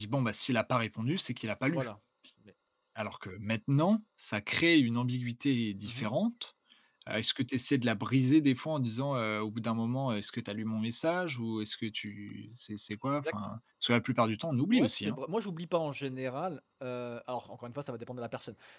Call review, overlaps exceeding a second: none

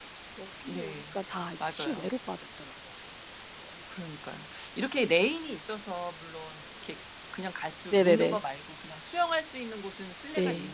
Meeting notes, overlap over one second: none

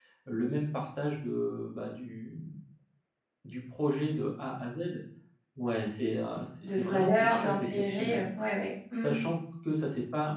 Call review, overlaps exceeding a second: present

